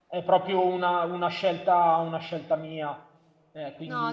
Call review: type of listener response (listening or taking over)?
taking over